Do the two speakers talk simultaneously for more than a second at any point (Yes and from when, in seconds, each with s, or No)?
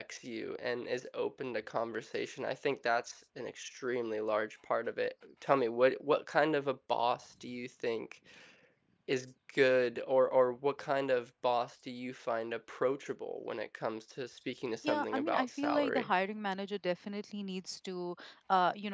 Yes, from 14.8 s